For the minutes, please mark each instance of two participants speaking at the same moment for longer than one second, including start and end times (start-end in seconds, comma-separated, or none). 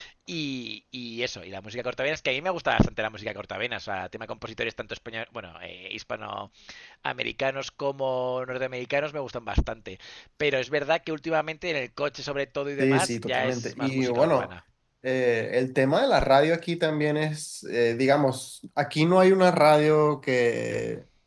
12.8-14.5